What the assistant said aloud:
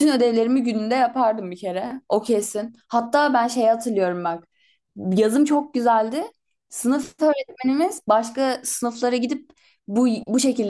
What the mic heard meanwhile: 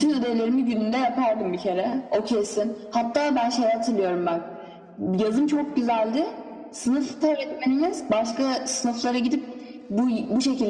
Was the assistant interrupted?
No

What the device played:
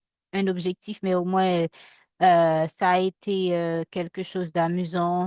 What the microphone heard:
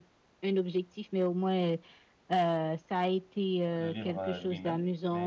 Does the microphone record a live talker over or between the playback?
Yes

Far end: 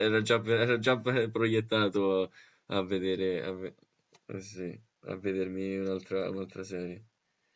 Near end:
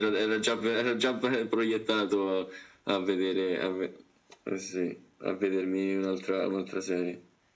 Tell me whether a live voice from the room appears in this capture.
No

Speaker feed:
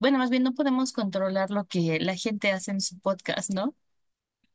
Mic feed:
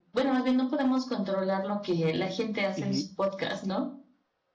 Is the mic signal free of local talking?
No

